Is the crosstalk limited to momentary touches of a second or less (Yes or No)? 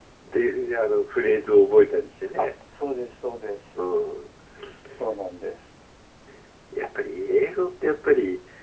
Yes